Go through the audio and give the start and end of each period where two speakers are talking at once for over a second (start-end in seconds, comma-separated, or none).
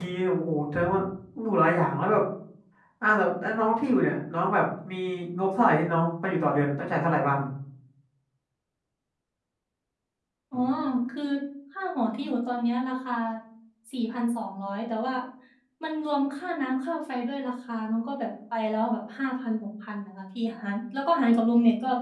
none